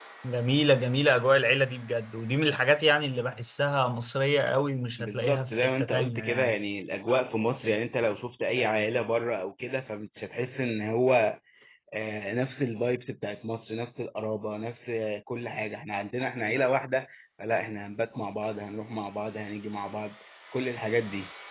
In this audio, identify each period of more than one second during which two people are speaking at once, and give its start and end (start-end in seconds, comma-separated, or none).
5.0-6.5